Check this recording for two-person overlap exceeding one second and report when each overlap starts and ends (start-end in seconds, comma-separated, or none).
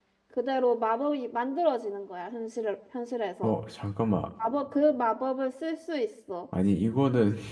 none